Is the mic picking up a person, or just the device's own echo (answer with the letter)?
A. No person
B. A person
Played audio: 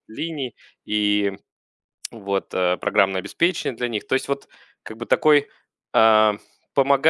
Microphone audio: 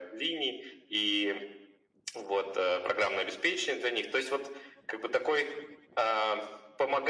A